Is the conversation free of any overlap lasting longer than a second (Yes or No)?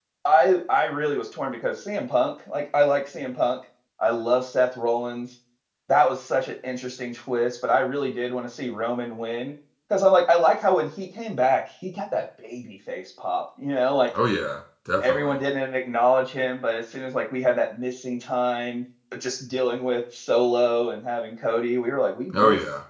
Yes